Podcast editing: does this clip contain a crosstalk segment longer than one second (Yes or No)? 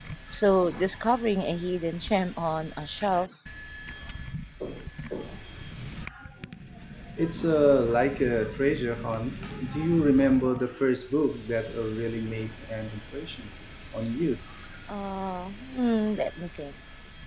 No